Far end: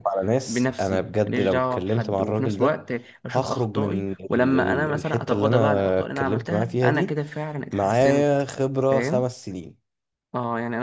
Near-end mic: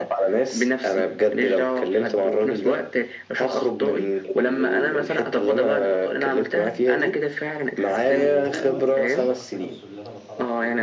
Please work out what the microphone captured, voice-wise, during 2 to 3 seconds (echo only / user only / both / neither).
echo only